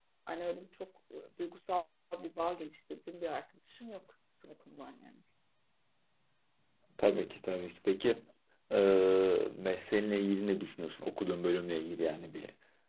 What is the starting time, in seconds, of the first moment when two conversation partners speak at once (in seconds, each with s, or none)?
none